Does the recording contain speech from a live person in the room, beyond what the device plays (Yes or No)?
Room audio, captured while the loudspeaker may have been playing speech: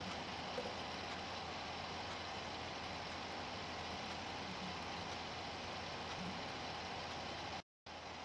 No